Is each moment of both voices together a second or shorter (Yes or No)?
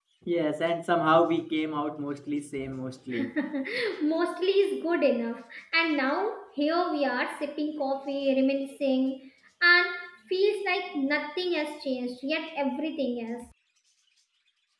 Yes